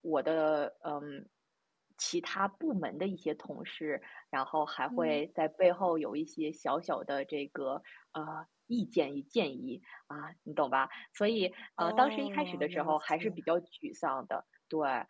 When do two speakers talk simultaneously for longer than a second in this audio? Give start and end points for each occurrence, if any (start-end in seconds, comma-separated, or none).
11.8-13.2